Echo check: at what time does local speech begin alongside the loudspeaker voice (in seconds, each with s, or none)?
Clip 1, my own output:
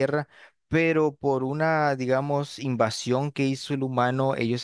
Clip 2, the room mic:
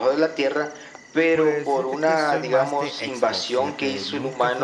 1.3 s